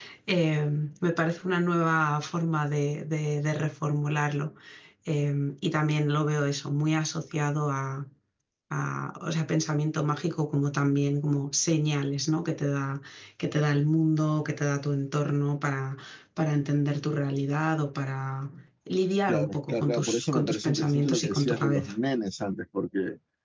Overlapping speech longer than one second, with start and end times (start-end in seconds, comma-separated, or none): 19.3-21.9